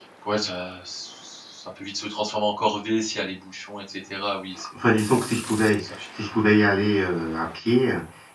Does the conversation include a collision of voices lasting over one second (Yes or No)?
No